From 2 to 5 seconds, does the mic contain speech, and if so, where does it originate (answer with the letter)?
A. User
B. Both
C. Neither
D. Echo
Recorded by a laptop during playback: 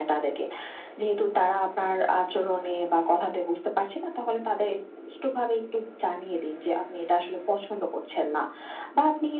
D